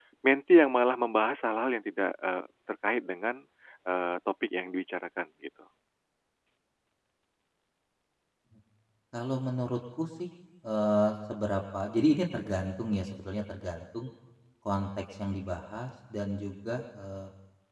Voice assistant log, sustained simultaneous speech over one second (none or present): none